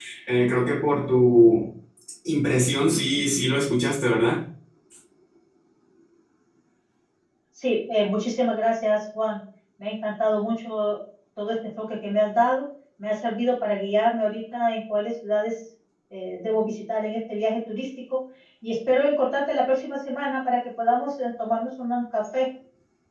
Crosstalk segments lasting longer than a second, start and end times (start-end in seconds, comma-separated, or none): none